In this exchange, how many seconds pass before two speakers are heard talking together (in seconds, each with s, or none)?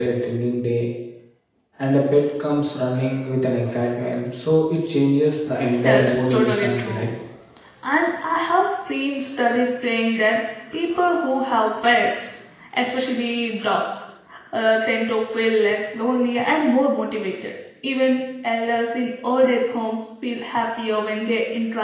5.7 s